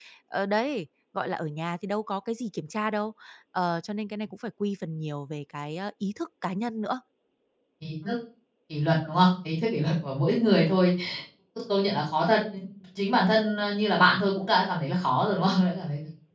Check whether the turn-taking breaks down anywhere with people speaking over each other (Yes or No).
No